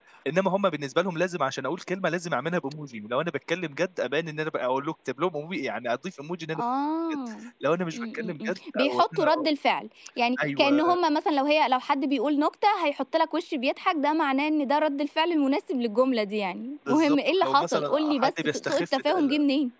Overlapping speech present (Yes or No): Yes